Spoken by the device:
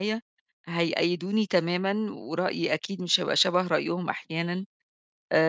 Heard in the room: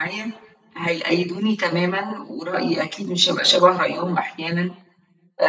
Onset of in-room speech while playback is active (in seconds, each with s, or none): none